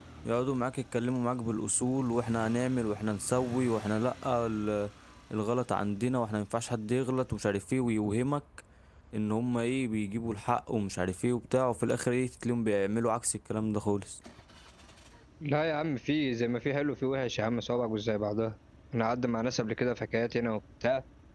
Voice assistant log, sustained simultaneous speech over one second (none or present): none